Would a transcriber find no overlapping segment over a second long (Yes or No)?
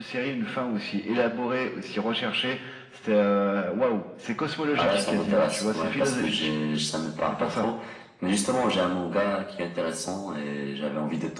No